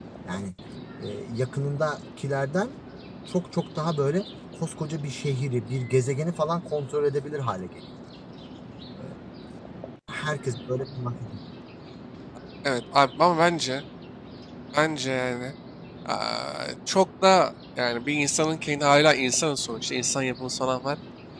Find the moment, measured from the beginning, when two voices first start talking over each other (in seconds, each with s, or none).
none